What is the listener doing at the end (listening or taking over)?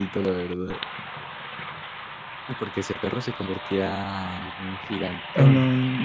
taking over